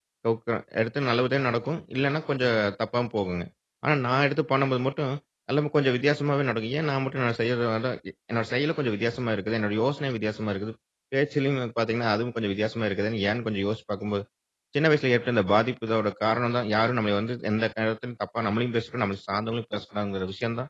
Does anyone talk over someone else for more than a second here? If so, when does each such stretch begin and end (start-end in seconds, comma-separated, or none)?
none